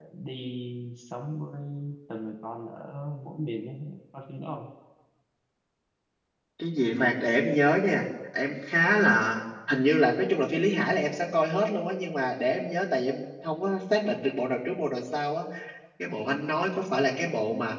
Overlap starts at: none

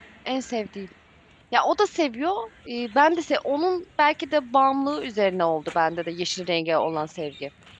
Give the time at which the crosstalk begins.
none

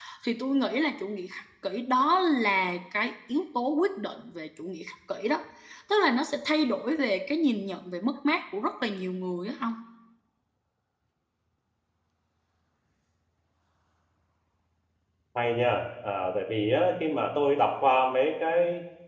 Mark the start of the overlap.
none

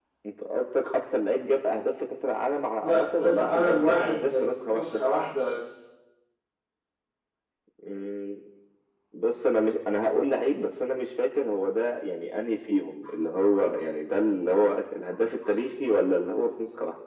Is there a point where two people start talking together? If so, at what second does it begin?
2.8 s

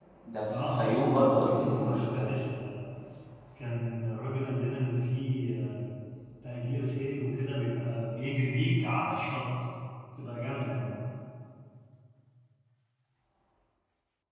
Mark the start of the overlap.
0.6 s

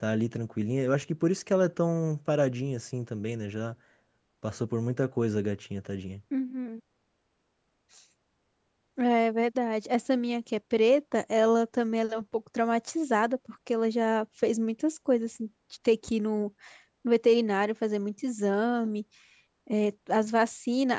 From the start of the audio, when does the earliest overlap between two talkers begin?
none

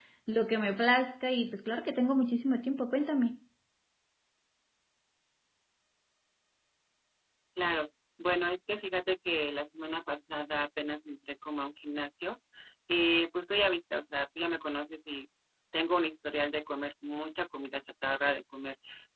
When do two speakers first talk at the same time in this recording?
none

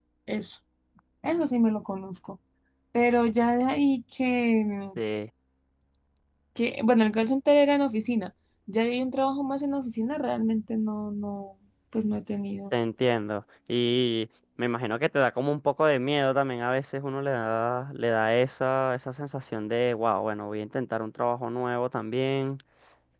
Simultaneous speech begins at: none

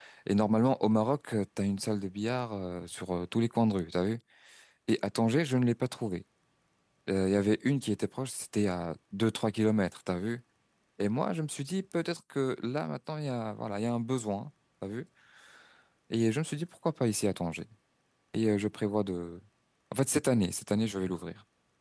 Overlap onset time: none

